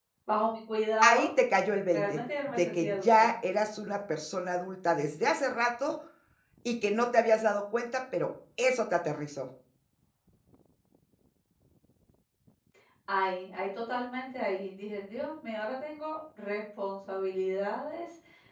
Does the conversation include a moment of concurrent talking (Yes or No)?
Yes